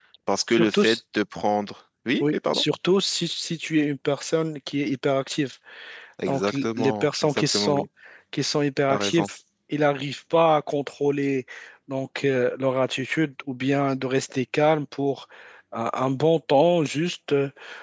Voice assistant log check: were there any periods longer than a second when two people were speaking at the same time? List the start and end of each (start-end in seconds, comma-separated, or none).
6.3-7.9